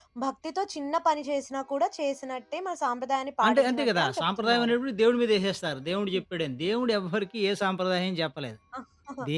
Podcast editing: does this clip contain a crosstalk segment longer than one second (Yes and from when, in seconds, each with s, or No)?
Yes, from 3.4 s